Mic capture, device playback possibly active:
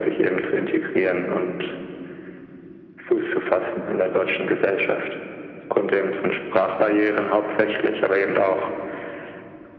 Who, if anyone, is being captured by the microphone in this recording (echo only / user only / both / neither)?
echo only